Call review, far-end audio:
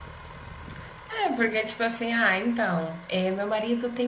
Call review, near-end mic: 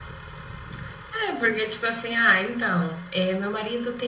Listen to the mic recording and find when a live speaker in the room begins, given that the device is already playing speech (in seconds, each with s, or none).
none